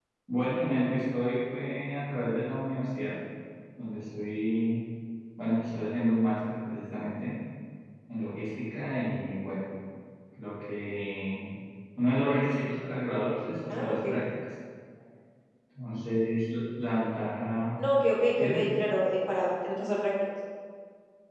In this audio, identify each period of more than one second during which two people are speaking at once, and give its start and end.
none

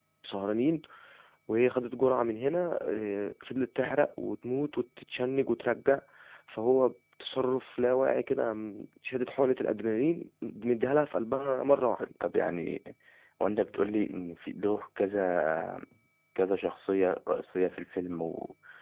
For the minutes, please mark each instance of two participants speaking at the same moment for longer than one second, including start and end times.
none

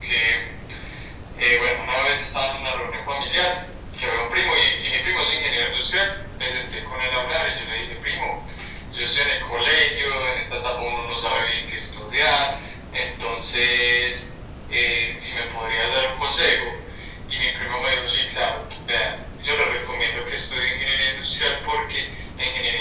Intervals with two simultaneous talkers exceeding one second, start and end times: none

